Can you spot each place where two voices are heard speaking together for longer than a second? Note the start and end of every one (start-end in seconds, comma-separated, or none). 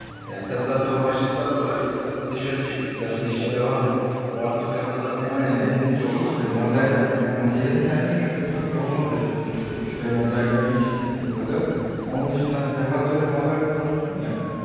5.2-7.2